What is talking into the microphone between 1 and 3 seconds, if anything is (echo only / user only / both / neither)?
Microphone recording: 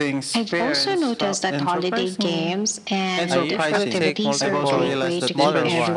echo only